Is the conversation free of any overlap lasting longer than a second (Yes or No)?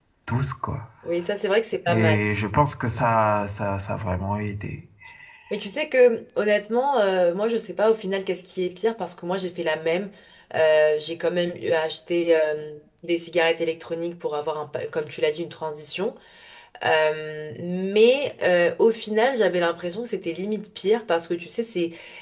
Yes